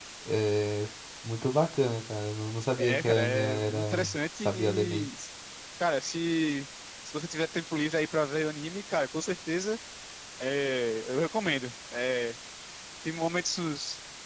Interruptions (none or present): present